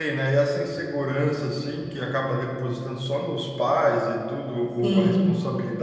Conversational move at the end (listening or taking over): listening